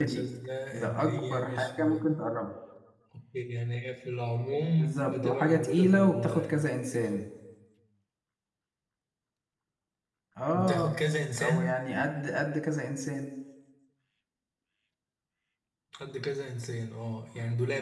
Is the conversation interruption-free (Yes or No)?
No